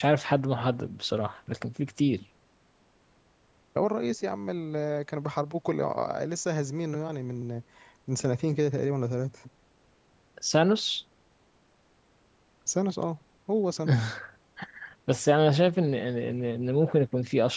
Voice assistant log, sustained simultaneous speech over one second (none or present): none